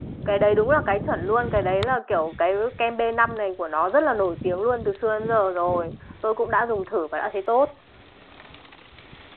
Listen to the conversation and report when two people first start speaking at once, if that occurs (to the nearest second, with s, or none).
none